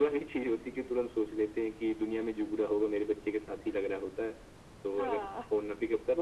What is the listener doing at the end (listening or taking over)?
listening